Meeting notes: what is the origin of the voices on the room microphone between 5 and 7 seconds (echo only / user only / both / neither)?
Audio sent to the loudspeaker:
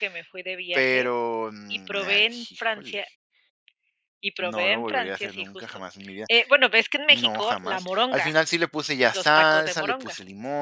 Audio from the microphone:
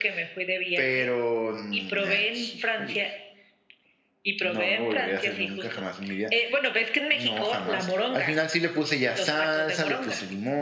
echo only